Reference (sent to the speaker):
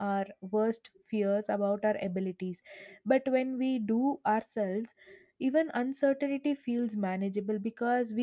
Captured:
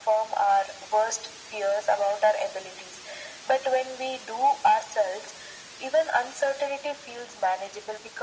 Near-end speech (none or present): none